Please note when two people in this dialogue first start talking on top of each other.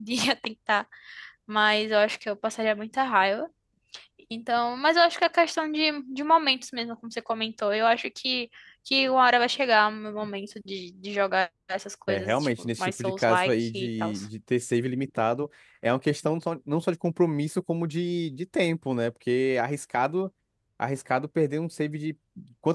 12 s

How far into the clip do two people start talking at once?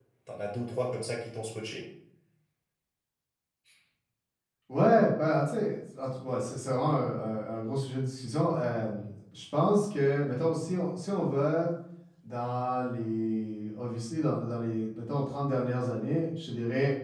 none

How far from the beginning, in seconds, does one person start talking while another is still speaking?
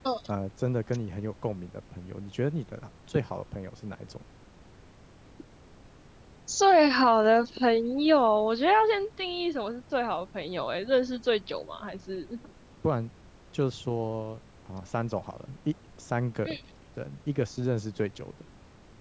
none

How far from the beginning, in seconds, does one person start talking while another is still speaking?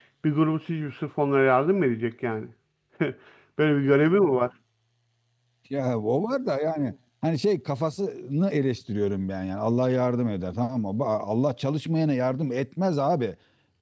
none

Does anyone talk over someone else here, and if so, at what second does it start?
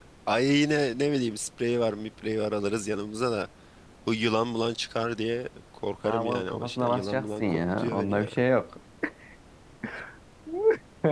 6 s

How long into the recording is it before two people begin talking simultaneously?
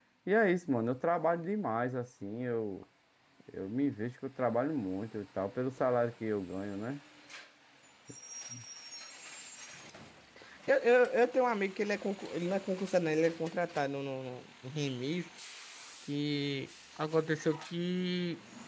none

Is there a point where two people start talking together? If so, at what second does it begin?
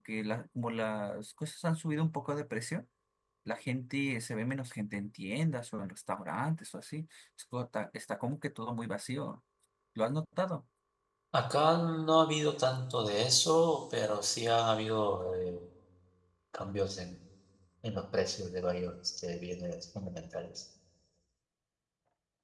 none

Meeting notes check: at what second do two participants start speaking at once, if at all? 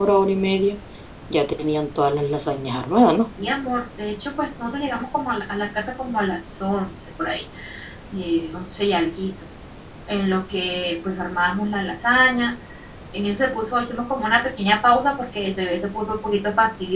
none

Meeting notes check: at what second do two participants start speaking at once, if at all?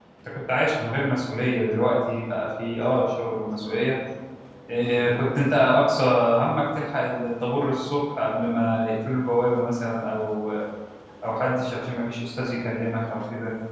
none

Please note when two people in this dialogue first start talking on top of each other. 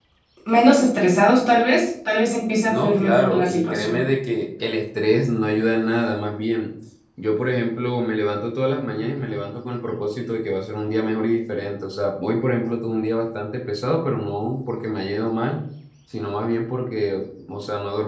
3 s

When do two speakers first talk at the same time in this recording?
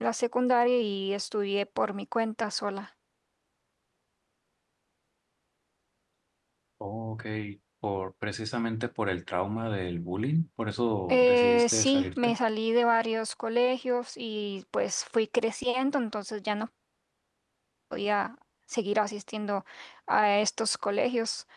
11 s

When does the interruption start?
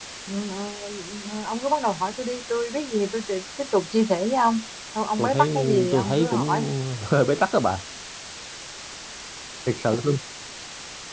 5 s

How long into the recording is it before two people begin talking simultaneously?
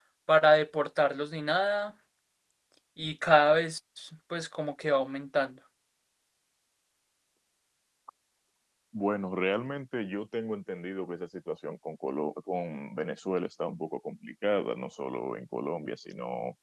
none

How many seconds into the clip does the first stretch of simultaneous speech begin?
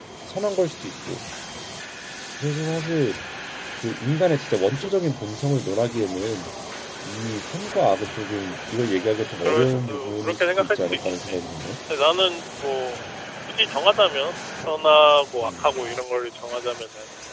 9 s

